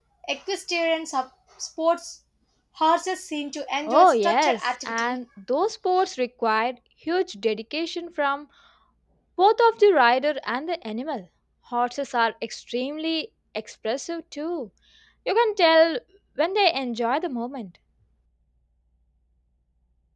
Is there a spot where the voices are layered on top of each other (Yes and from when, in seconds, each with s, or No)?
Yes, from 3.9 s